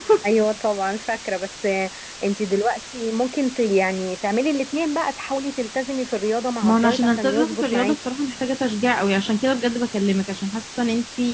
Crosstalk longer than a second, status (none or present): present